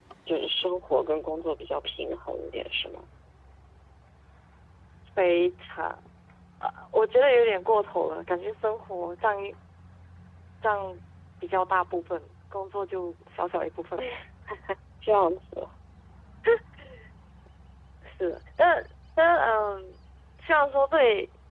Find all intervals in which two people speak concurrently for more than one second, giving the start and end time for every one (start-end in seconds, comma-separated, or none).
none